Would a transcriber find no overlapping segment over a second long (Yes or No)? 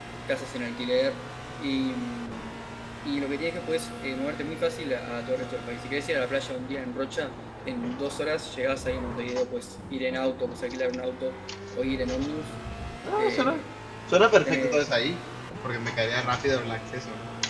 Yes